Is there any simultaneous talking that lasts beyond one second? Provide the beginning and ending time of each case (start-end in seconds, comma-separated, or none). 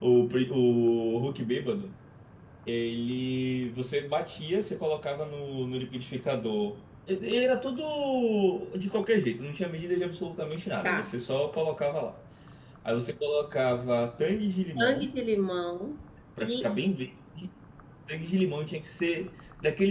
none